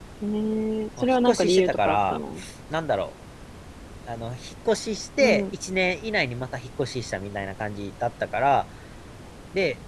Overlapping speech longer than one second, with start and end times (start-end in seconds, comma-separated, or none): 1.0-2.2